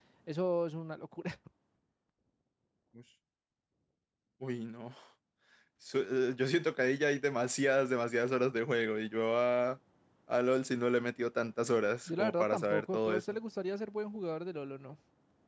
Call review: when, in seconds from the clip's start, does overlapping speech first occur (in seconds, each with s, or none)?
12.1 s